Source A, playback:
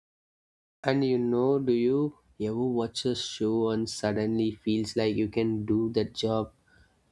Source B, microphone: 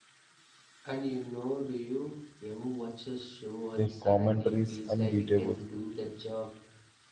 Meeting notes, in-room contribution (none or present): present